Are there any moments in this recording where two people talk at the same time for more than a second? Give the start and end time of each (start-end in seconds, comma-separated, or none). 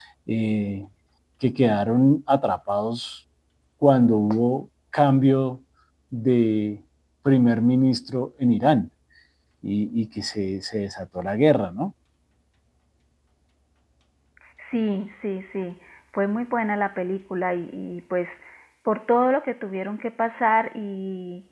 none